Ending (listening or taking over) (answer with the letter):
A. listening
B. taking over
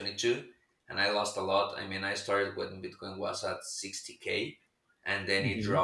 A